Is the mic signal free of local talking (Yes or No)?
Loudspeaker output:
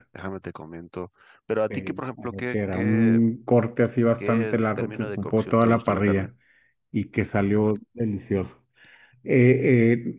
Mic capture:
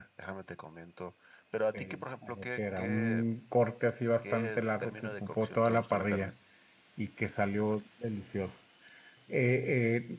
Yes